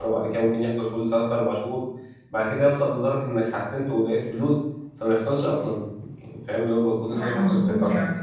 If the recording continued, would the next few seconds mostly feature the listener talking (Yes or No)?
Yes